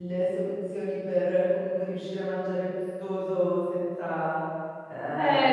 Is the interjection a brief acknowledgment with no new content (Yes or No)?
Yes